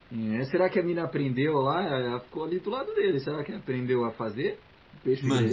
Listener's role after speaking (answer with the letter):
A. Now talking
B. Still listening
A